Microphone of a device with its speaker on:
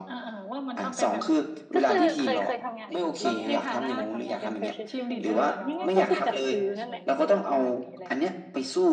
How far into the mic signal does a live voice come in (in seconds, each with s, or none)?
1.7 s